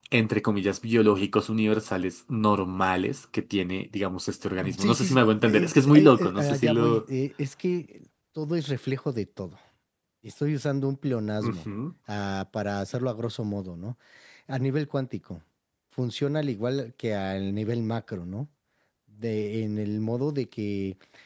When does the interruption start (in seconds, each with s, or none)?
4.8 s